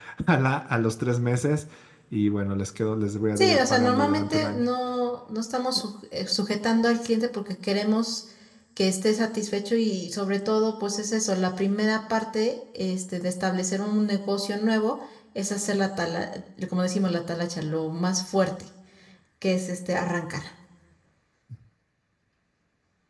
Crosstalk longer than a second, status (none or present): present